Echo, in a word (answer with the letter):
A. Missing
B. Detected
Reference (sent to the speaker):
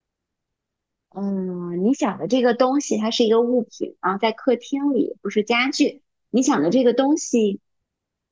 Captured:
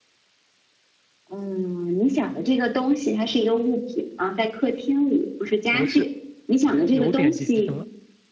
B